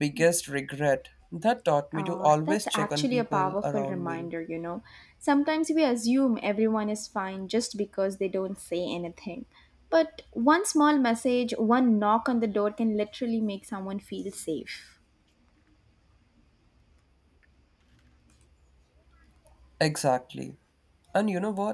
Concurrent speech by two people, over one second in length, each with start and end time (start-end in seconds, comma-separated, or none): 1.9-4.2